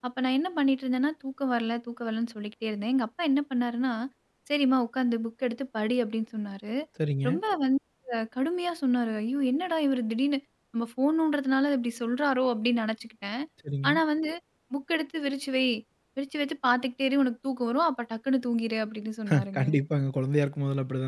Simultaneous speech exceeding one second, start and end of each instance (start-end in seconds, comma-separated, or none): none